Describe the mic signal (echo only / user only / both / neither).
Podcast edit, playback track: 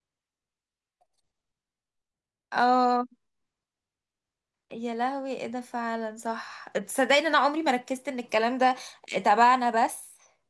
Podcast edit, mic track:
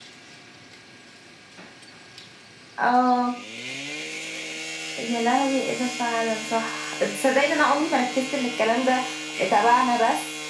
echo only